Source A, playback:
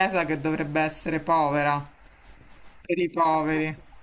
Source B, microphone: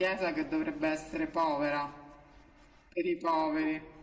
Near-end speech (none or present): none